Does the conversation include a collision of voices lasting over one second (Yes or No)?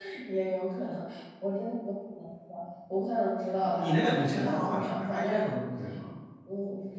Yes